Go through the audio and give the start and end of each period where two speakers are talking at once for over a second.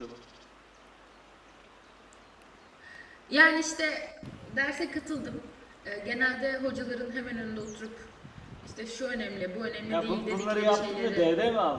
9.9-11.3

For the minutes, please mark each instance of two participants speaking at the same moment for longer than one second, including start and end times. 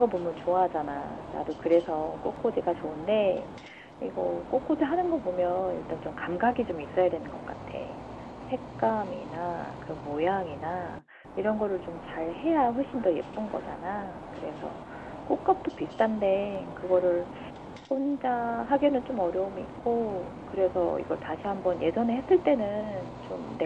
none

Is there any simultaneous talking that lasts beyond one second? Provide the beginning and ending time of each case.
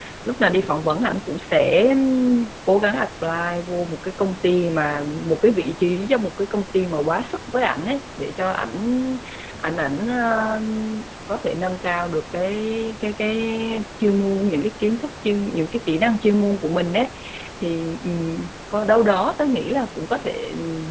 none

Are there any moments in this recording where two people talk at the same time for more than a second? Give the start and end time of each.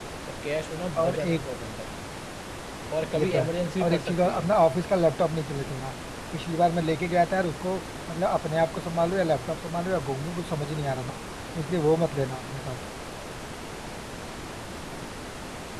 3.1-4.5

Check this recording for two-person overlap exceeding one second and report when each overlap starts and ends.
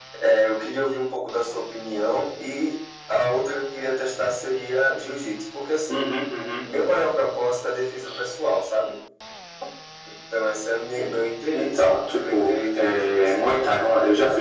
11.5-13.6

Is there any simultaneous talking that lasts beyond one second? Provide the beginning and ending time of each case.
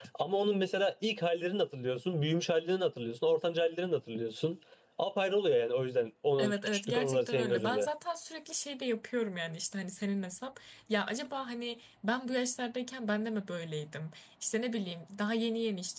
6.4-7.9

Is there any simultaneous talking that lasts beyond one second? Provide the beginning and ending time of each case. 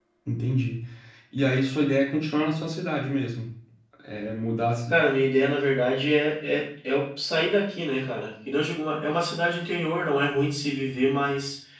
none

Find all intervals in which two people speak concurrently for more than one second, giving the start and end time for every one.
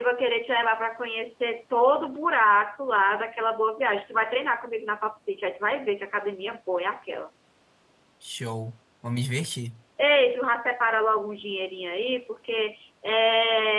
none

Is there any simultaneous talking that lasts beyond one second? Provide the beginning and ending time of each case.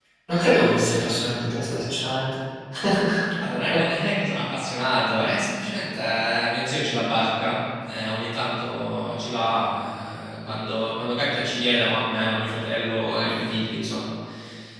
none

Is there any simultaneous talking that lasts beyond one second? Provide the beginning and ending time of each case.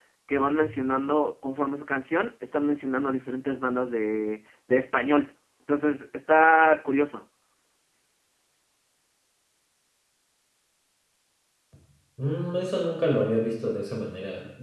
none

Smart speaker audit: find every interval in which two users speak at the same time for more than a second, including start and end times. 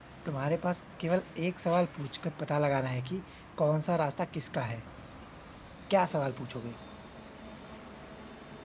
none

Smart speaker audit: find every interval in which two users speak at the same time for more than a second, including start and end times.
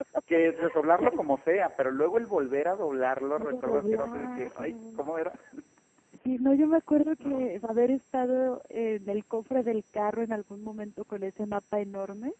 3.3-5.0

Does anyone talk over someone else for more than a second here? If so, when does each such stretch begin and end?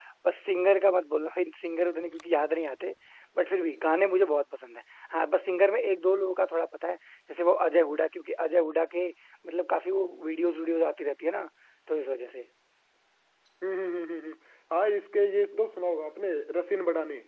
none

